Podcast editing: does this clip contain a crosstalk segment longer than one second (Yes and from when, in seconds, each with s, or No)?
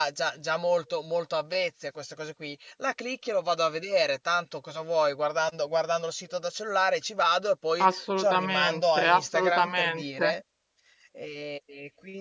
Yes, from 7.8 s